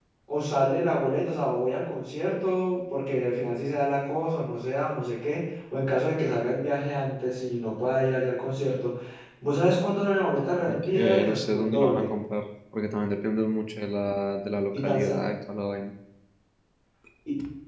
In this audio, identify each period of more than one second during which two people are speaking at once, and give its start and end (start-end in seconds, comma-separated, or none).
10.7-12.1